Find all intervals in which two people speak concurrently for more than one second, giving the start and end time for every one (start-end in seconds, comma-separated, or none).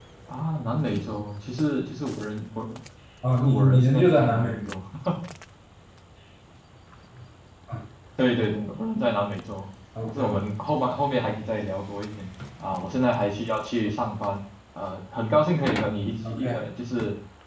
3.4-4.8